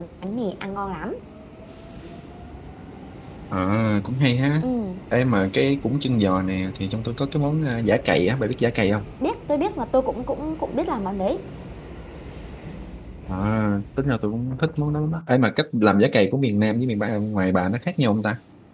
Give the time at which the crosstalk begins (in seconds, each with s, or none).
none